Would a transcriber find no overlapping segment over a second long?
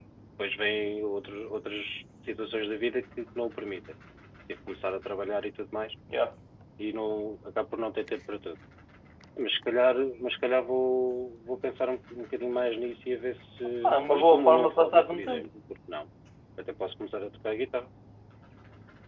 No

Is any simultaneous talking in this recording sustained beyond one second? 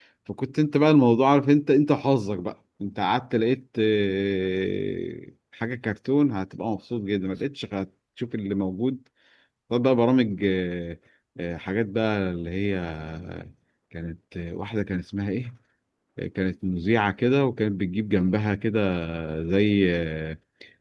No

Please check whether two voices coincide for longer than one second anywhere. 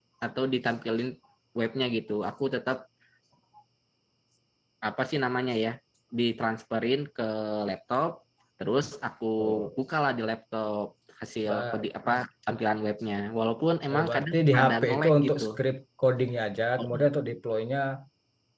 Yes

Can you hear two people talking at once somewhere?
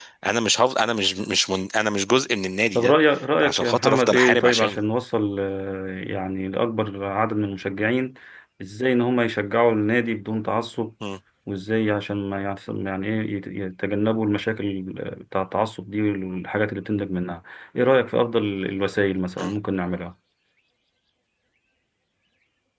Yes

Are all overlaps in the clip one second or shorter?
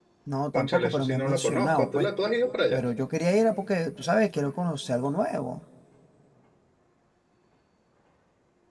No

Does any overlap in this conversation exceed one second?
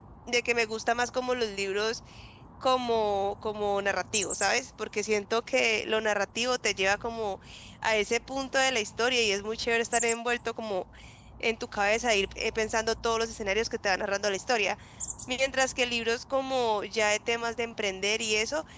No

